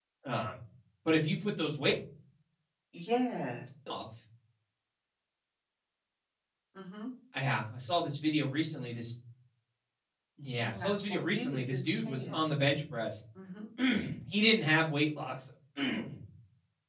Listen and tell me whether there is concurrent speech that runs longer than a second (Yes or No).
Yes